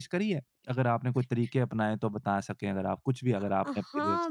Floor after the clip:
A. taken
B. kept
A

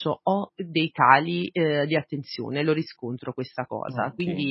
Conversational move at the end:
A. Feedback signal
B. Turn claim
A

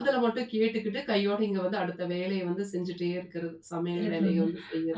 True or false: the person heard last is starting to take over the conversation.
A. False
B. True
B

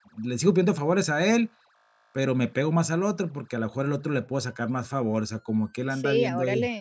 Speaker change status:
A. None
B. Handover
B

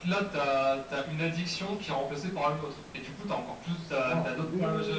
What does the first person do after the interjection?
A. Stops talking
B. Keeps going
A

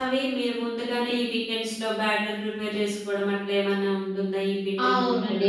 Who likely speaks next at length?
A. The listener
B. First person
A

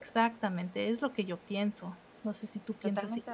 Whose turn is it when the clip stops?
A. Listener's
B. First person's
A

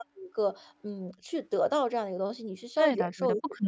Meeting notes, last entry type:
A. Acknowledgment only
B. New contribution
B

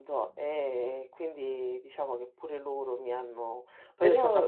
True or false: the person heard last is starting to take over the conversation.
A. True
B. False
A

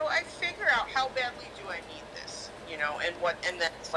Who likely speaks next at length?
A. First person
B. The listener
A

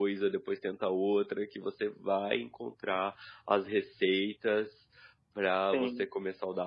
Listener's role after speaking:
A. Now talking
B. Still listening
B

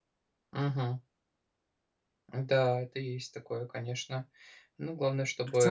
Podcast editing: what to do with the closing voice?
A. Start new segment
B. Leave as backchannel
A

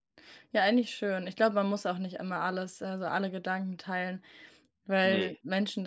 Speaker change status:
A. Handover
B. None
B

